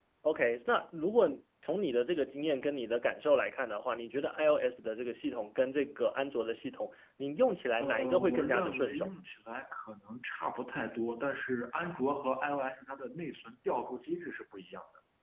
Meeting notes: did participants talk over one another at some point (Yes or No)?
Yes